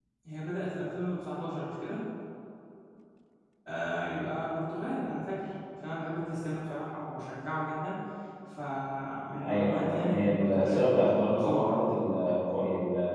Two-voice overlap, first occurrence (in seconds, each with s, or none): 9.4 s